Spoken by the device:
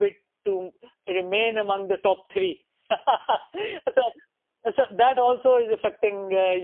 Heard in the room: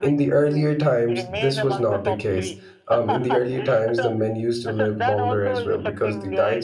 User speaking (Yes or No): Yes